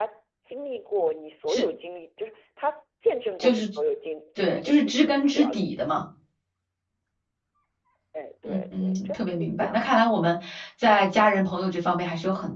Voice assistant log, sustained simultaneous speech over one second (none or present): present